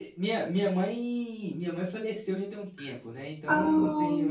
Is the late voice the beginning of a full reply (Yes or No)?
No